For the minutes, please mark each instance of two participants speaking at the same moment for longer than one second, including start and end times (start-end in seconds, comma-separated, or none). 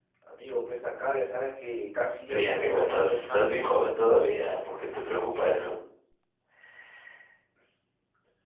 2.3-3.8